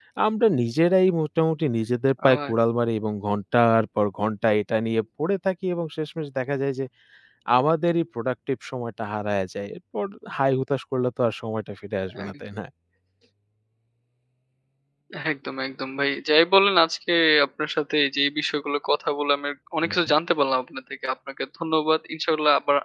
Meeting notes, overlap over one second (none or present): none